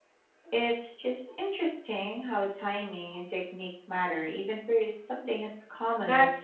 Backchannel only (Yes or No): No